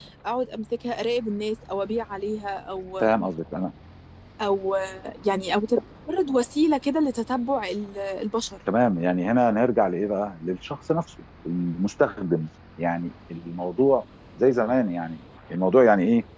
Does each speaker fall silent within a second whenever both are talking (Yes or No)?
Yes